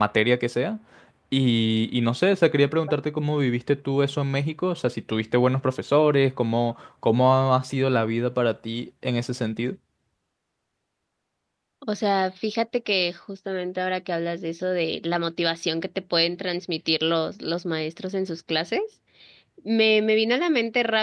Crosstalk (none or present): none